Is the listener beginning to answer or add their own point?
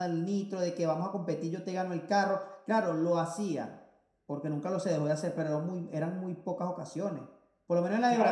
Yes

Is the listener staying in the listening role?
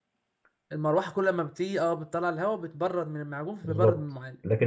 No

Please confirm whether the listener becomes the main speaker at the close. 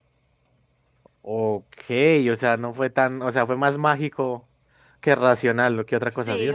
No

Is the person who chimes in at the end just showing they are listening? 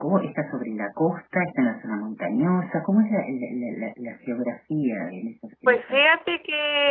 No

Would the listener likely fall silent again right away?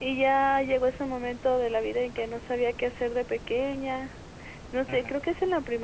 Yes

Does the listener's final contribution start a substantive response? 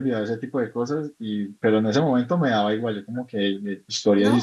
Yes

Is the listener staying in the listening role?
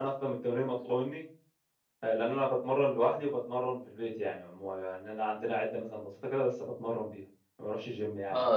No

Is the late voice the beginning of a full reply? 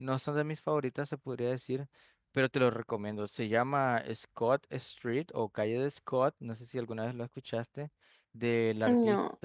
No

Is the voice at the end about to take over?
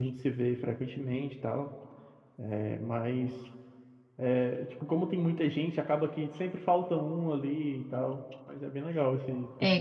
Yes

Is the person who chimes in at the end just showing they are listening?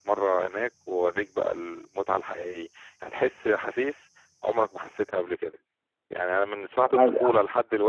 Yes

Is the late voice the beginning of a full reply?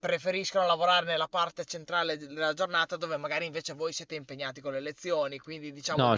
Yes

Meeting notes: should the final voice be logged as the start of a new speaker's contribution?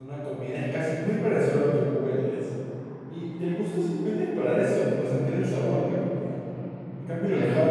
No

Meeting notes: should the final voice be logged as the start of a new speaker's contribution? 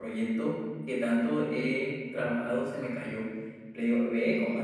No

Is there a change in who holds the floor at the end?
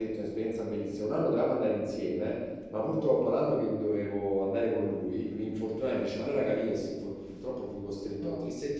No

